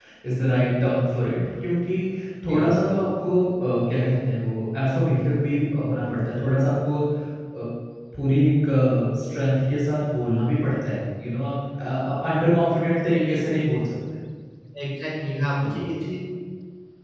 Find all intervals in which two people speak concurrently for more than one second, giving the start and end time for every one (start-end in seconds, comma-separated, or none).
none